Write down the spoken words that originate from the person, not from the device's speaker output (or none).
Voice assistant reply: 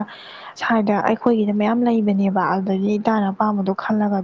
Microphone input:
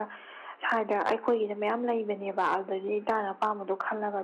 none